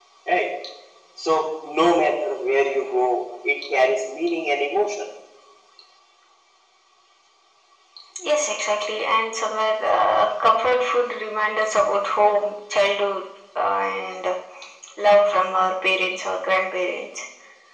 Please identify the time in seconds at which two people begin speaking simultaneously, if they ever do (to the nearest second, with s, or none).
none